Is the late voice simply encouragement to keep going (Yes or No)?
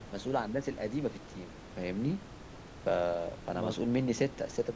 Yes